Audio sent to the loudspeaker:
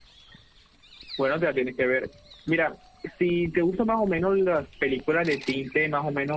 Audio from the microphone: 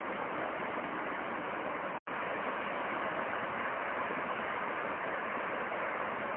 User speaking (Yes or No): No